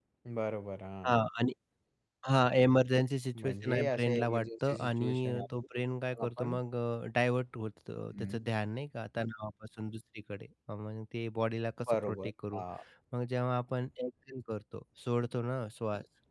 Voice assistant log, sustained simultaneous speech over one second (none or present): present